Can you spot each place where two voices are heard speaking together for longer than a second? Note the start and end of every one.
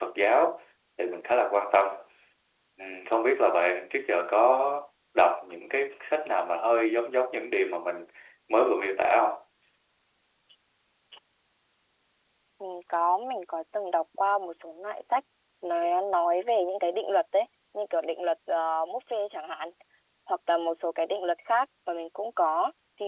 none

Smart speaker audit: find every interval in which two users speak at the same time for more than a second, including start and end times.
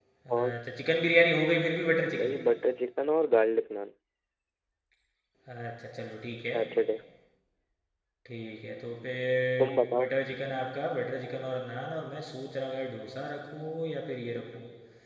none

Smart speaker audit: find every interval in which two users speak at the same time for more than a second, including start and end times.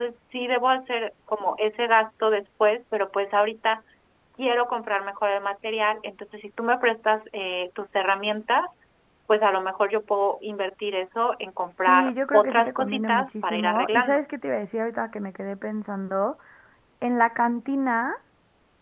11.9-14.2

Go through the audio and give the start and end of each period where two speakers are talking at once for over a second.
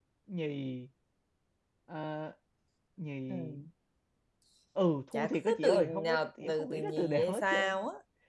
5.1-7.8

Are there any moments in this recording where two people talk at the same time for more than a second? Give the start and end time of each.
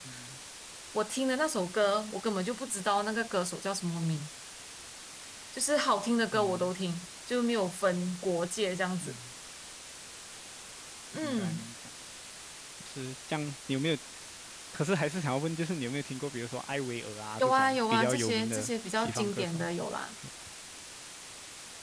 17.4-19.6

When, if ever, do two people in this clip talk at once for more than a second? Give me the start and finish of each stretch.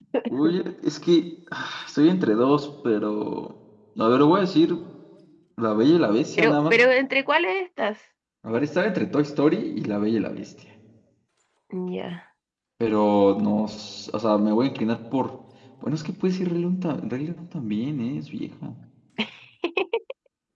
none

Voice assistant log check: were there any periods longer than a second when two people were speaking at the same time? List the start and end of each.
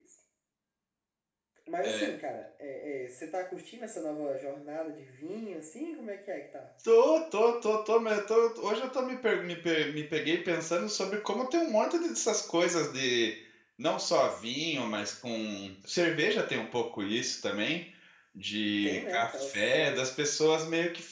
18.8-20.1

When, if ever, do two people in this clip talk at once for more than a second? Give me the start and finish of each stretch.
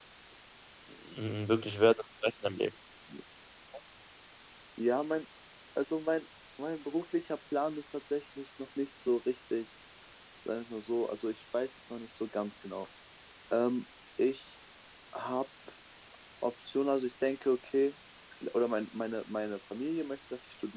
none

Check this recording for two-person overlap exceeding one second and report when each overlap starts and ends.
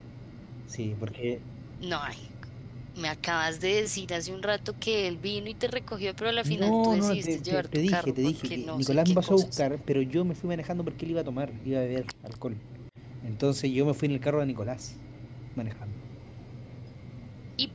6.4-9.6

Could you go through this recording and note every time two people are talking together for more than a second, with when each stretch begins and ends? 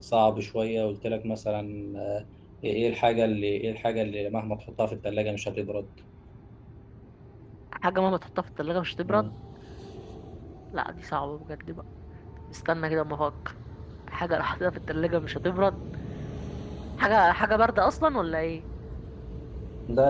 none

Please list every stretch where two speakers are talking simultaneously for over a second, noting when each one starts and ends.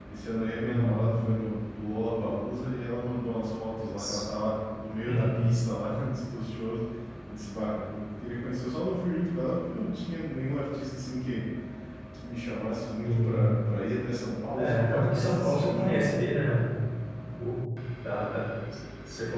14.5-16.3

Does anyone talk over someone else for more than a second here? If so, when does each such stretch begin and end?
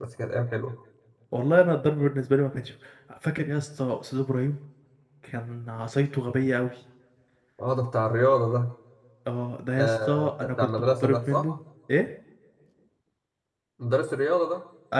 9.8-11.4

